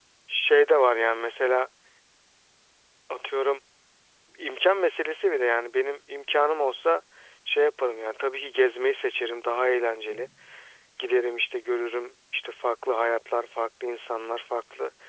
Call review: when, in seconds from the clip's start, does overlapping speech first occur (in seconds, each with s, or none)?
none